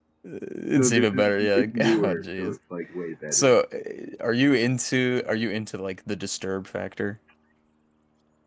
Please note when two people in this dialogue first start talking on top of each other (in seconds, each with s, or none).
0.8 s